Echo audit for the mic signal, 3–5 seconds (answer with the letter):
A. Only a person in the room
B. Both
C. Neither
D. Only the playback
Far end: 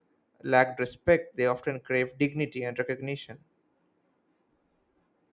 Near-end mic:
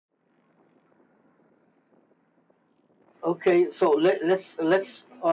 A